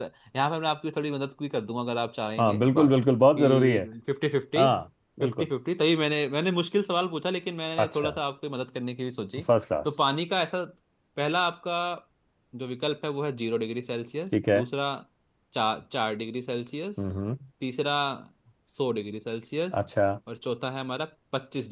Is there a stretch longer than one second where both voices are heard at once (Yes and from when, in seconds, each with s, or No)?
No